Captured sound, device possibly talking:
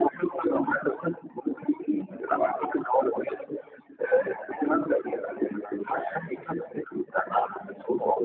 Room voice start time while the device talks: none

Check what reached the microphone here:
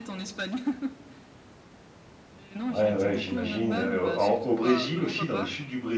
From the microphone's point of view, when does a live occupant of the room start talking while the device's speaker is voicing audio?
2.7 s

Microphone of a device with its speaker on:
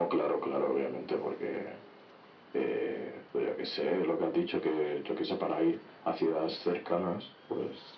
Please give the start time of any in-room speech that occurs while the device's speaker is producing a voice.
none

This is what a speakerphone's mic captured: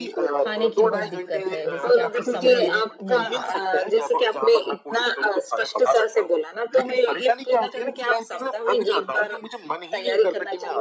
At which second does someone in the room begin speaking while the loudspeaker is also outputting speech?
0.4 s

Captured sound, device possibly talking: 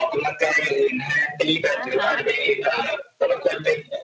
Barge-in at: 1.8 s

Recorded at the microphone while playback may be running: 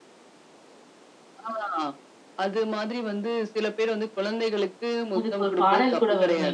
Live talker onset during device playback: 5.2 s

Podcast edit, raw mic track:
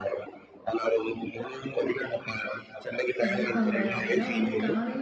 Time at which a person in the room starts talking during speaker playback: 3.2 s

